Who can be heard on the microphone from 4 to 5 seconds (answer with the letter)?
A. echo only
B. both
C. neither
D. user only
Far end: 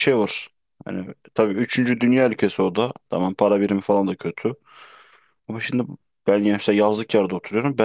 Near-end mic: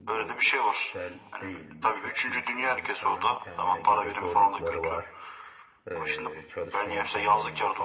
B